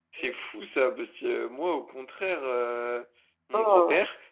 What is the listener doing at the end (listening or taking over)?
listening